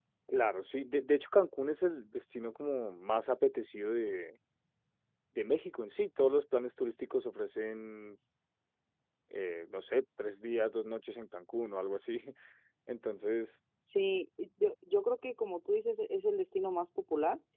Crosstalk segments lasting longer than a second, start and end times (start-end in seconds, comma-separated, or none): none